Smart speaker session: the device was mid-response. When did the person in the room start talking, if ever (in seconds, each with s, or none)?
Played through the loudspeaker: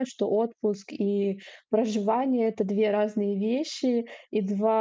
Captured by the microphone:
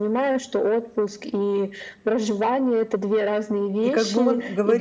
3.8 s